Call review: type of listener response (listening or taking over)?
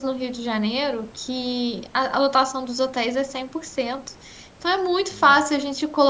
listening